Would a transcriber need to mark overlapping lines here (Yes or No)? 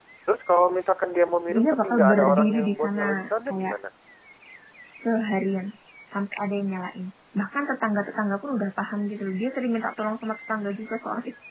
Yes